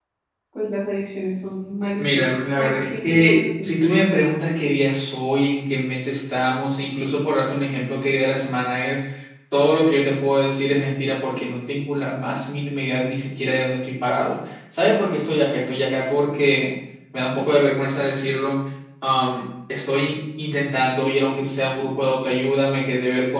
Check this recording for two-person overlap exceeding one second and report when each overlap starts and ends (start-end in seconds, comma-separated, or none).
2.0-3.7